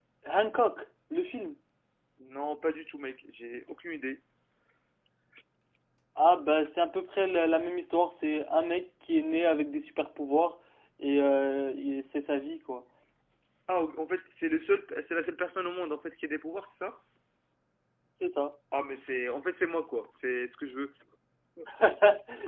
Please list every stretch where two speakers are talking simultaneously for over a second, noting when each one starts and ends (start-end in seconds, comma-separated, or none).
none